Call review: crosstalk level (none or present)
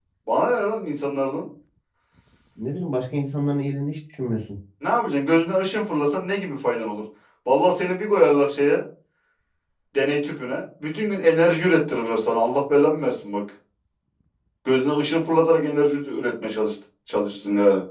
none